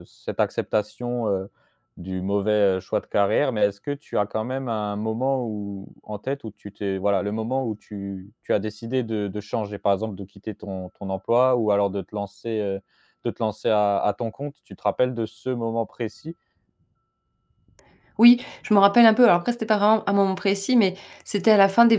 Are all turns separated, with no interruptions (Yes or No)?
Yes